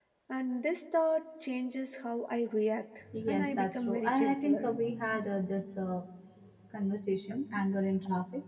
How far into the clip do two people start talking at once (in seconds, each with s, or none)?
3.1 s